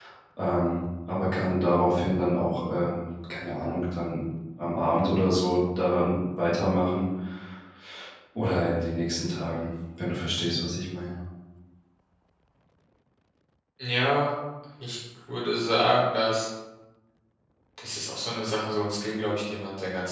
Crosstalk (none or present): none